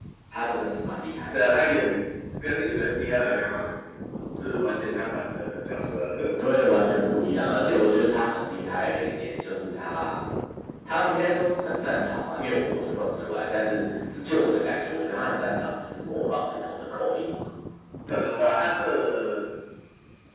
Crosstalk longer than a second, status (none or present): none